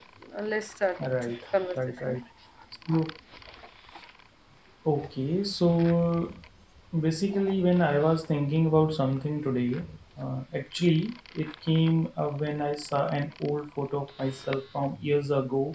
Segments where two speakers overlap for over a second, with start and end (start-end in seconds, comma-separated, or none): none